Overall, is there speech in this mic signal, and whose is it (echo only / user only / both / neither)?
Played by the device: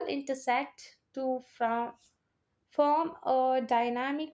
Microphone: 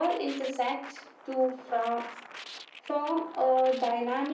echo only